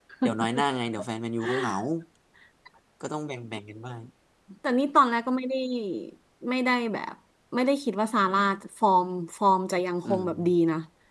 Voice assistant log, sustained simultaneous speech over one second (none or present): none